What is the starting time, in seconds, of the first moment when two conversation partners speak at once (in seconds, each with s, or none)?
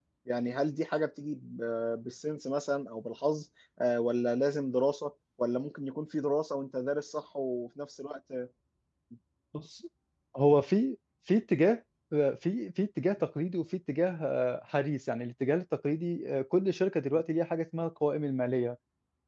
none